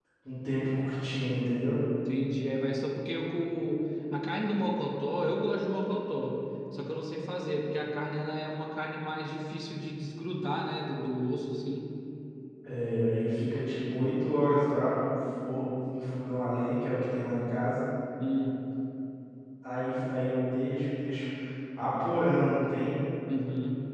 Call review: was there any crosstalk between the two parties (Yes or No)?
No